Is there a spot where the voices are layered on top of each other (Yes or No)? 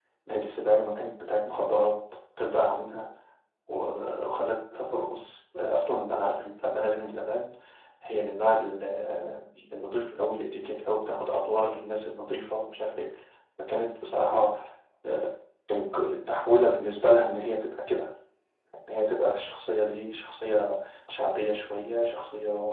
No